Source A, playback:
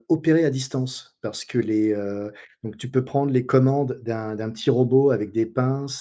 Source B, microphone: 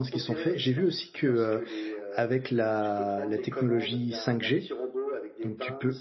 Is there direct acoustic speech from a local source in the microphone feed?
Yes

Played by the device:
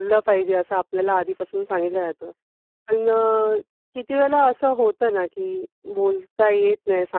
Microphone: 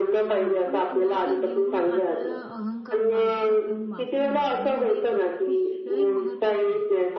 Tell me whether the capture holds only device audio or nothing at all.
No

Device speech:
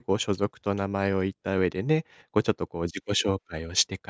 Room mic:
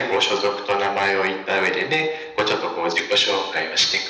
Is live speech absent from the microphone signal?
Yes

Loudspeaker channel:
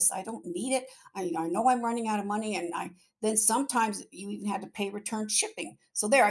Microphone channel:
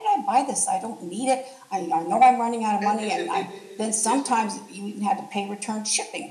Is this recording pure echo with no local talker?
No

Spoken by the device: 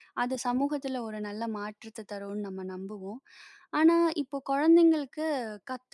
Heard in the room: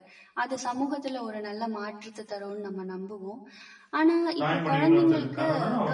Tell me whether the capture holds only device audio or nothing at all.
No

